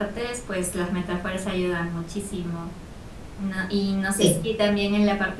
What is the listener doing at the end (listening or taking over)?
listening